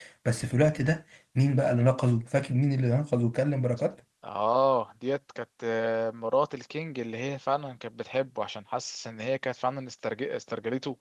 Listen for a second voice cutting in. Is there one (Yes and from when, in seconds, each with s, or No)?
No